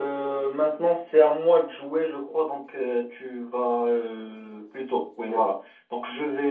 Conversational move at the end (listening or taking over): listening